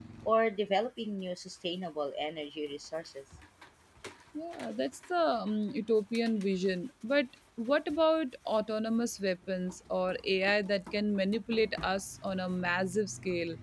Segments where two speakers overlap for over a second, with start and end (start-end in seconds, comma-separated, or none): none